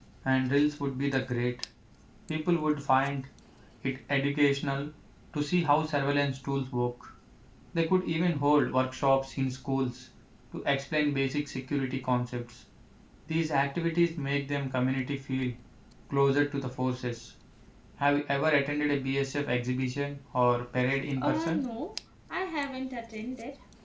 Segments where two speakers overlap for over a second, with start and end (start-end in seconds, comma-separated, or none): none